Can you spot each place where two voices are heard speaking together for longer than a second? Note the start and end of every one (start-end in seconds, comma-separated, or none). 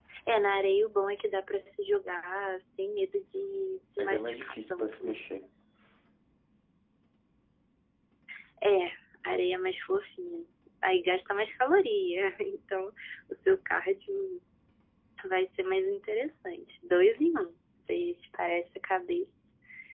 4.0-5.2